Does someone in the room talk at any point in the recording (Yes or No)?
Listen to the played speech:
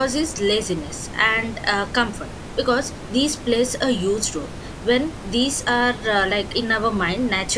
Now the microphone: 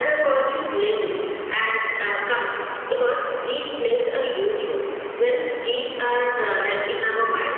No